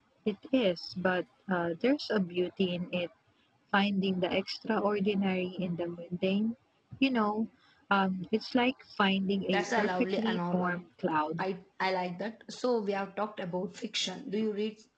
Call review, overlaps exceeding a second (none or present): present